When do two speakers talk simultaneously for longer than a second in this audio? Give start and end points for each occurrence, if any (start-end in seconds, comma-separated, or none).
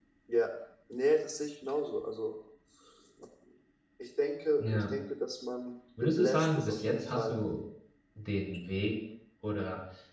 6.0-7.4